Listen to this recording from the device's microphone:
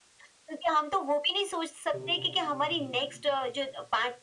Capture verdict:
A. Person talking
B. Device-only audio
A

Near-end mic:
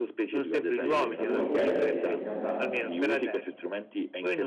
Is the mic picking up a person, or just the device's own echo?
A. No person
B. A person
B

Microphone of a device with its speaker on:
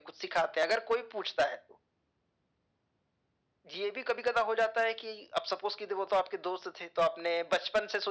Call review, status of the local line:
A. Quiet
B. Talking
A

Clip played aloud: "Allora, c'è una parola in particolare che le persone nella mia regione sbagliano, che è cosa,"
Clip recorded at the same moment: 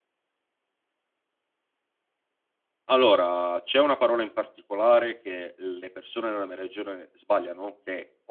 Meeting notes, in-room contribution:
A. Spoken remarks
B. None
B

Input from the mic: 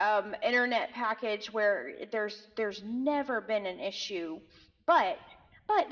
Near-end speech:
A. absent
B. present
A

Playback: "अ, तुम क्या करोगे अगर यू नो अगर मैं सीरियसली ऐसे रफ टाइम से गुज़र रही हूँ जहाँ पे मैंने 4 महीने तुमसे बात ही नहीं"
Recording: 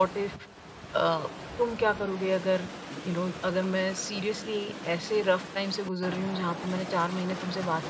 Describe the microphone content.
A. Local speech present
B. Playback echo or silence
B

